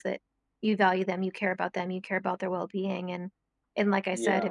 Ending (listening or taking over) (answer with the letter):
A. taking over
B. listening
B